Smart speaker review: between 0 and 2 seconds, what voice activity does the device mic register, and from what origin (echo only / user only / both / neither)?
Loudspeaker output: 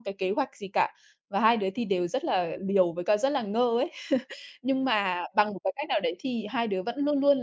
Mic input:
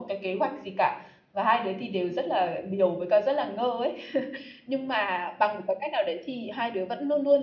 echo only